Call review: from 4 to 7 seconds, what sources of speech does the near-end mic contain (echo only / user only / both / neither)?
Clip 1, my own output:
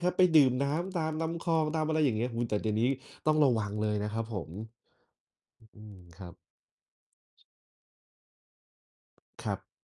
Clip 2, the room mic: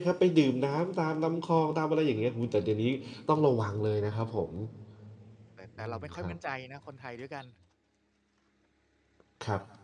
both